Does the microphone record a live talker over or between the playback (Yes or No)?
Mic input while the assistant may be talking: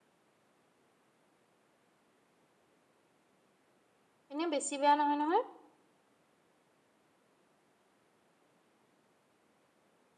Yes